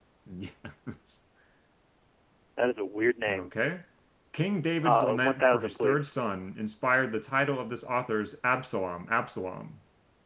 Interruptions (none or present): present